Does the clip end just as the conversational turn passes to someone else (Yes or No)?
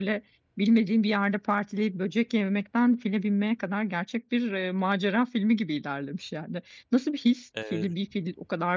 No